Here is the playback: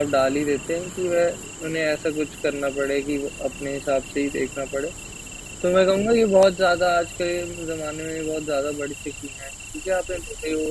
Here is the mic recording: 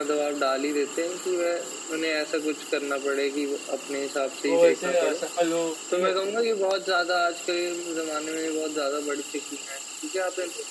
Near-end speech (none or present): present